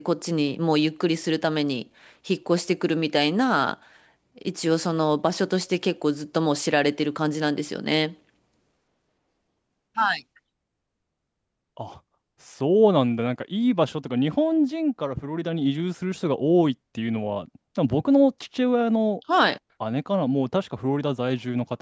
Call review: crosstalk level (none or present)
none